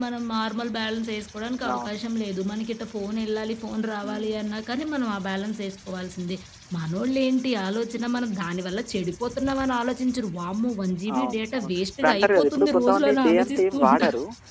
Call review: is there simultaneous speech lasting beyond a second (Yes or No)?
Yes